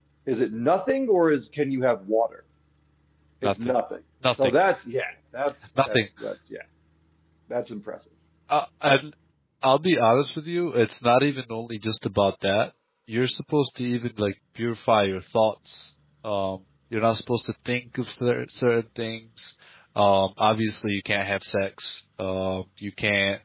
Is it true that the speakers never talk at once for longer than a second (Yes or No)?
Yes